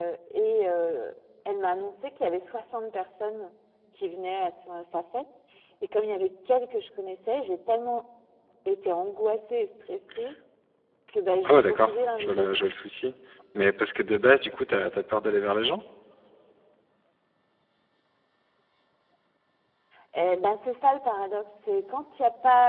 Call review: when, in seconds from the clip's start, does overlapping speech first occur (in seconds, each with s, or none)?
11.4 s